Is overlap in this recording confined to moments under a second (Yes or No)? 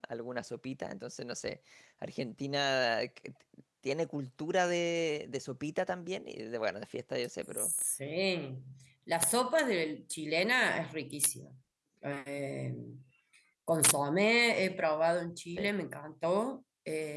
Yes